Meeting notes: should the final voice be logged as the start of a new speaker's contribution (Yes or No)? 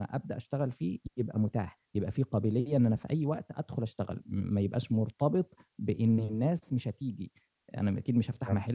No